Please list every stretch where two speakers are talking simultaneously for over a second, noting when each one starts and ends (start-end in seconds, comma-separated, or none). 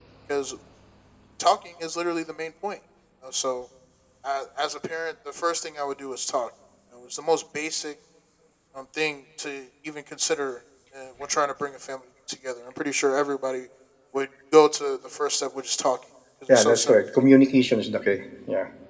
none